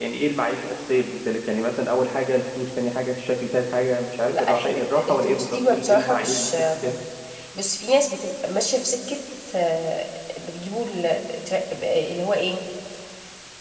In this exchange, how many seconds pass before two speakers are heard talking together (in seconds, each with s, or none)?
4.3 s